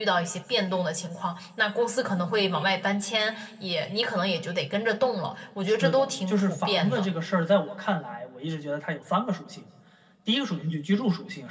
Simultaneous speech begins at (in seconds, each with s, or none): 5.8 s